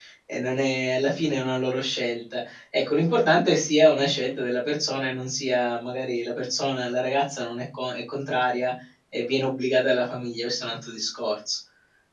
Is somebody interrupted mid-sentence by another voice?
No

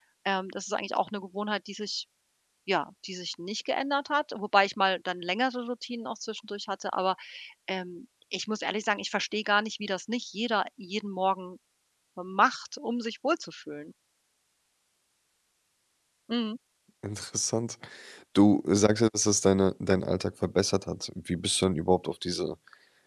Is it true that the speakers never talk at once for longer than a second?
Yes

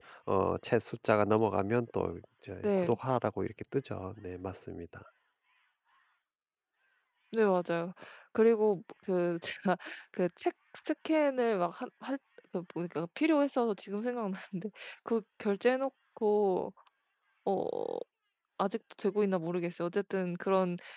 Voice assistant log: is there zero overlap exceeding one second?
Yes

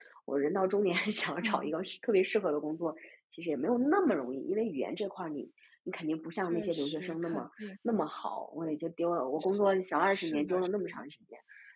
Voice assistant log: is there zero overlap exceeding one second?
No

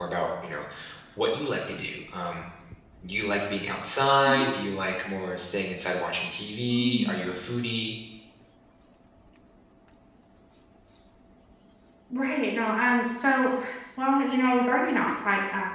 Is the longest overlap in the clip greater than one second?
No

